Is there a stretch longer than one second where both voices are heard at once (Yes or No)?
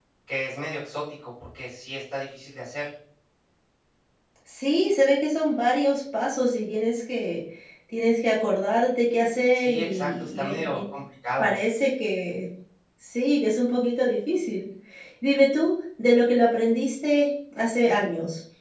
Yes